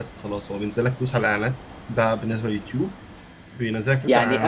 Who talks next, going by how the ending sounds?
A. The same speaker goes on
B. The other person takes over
B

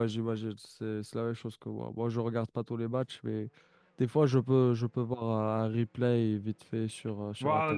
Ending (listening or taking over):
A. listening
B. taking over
B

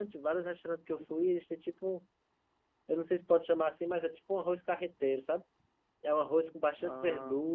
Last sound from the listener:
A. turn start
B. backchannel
B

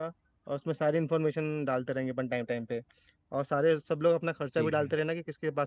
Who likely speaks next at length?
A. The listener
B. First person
B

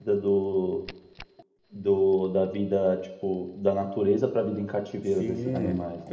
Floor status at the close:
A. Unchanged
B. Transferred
B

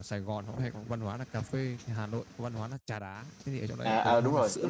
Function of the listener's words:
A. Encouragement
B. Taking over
B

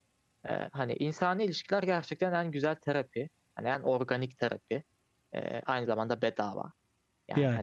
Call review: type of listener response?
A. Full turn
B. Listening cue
B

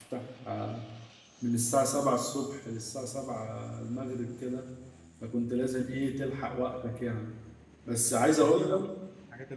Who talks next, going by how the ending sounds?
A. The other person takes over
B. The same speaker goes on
A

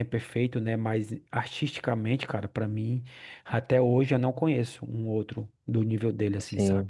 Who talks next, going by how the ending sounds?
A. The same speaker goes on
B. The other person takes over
B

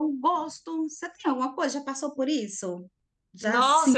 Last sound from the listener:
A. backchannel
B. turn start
B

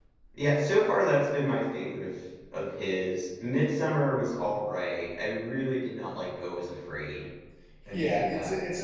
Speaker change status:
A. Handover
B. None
A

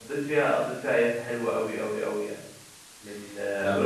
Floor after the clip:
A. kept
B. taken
B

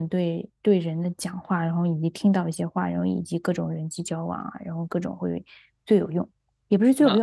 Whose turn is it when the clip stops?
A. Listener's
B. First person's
B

